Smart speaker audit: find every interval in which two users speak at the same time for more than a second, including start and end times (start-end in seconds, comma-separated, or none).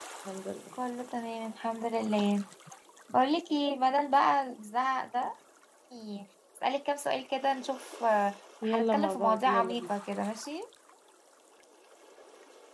8.6-9.9